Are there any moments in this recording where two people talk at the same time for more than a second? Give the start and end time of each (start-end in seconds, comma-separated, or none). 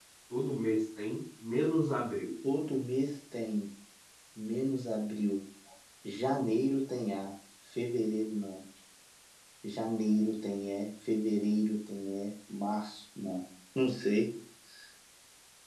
none